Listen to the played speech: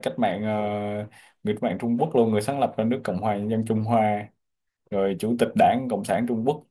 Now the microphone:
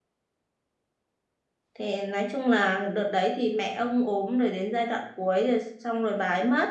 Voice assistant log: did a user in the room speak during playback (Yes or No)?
Yes